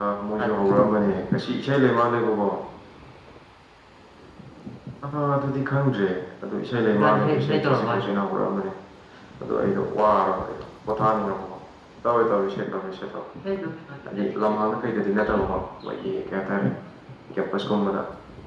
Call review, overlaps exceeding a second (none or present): present